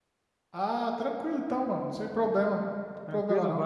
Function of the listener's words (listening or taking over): taking over